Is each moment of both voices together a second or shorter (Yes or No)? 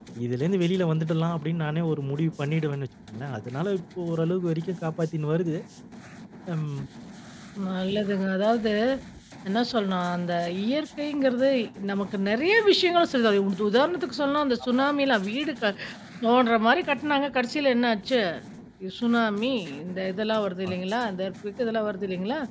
Yes